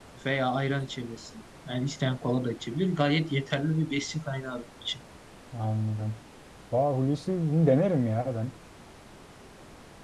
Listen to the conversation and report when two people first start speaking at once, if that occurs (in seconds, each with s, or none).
none